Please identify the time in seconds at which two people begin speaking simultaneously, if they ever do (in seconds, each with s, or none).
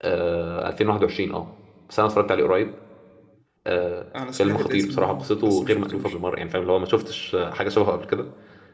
4.4 s